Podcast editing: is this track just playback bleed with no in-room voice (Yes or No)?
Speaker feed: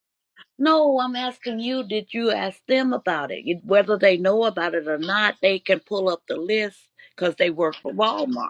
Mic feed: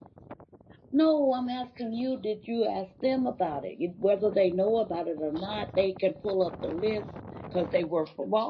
Yes